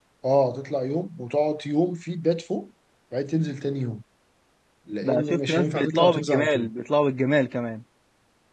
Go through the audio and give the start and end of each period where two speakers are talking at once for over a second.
5.0-6.7

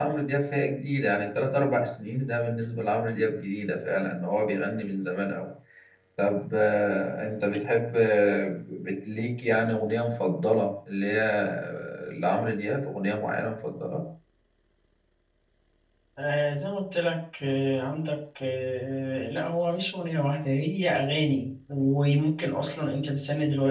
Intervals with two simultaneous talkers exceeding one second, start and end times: none

